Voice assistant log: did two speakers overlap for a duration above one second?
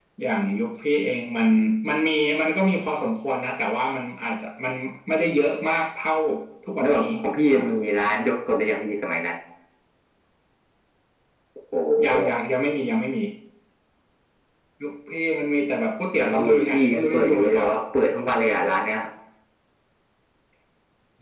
Yes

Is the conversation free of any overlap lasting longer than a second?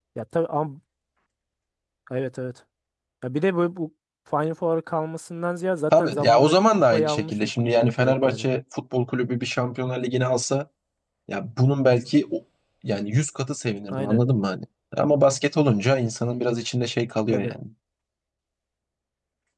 No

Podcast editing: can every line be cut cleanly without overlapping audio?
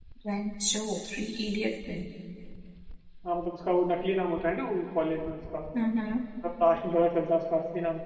Yes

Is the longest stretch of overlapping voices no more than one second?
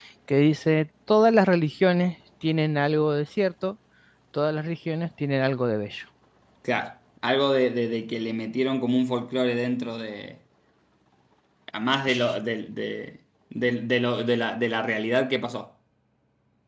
Yes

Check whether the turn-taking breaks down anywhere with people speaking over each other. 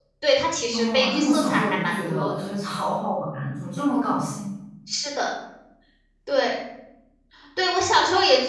Yes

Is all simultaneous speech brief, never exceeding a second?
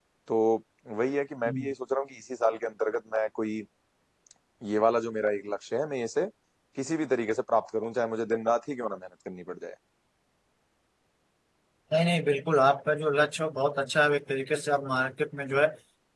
Yes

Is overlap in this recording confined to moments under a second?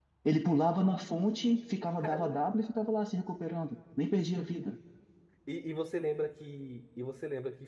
Yes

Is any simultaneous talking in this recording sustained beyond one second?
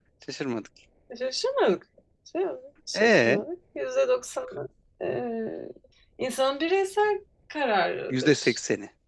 No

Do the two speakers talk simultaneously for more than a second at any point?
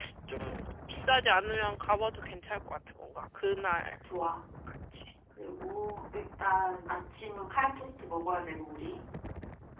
No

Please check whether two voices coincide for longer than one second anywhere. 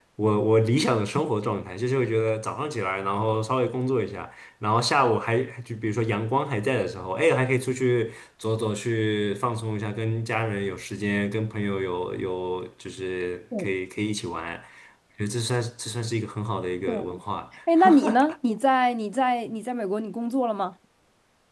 No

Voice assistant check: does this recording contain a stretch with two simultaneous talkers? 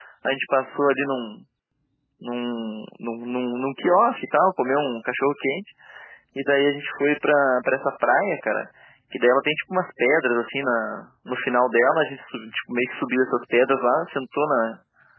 No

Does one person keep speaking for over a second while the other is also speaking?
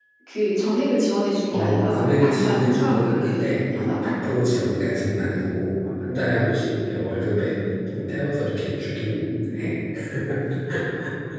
Yes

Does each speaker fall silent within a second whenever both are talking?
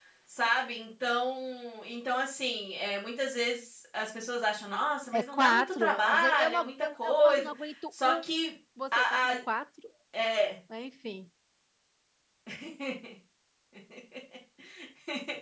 No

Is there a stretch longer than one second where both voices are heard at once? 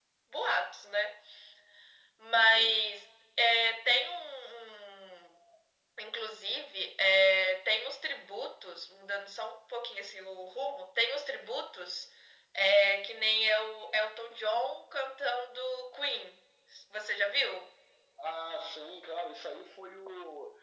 No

